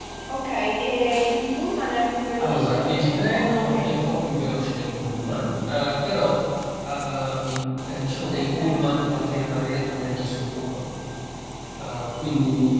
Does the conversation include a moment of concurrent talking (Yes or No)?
Yes